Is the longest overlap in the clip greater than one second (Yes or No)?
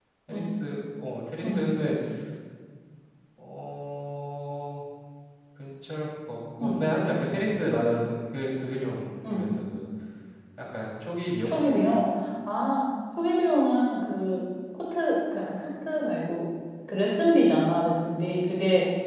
No